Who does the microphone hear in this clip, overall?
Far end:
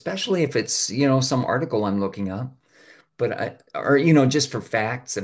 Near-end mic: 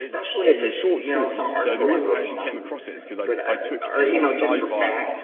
both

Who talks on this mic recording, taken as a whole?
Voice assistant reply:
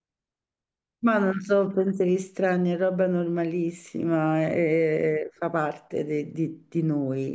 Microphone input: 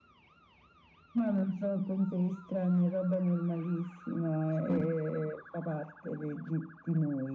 both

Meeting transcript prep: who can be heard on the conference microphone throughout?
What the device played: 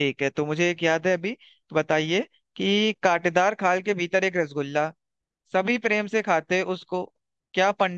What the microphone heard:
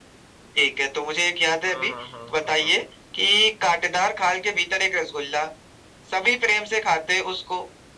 both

